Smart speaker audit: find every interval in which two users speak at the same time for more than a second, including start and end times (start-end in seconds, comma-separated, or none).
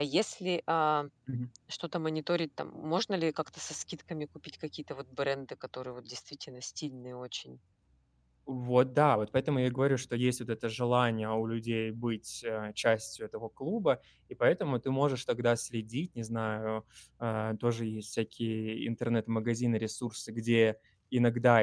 none